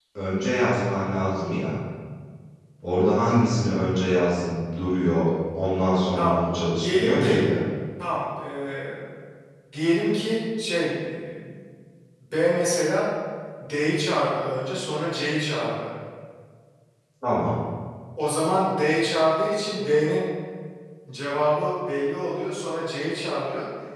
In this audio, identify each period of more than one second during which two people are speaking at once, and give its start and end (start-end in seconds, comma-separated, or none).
6.2-7.5